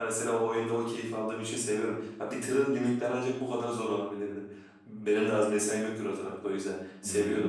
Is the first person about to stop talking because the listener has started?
No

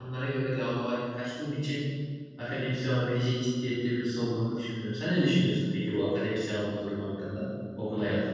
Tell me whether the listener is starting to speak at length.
Yes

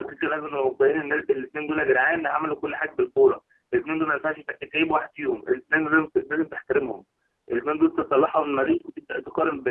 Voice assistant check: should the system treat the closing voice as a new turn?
No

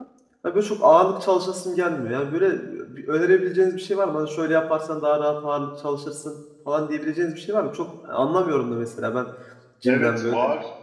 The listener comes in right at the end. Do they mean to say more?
Yes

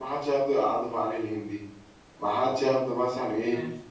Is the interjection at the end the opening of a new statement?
No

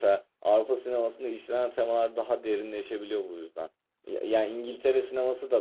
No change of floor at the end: Yes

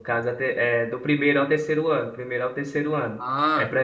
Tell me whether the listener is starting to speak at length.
No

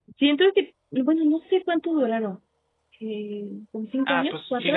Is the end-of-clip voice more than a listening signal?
Yes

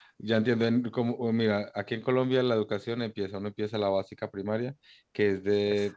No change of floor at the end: Yes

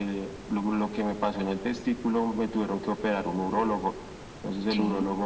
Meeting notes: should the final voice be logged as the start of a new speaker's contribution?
No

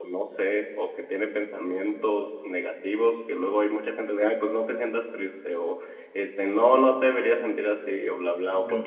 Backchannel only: Yes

